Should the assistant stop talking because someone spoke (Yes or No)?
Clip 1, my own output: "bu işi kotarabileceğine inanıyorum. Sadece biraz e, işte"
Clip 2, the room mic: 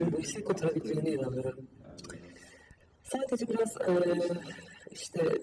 Yes